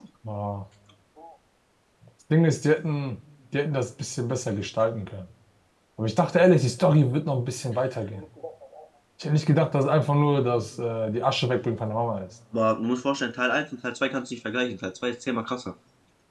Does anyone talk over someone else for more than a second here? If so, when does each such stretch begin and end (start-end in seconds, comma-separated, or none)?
none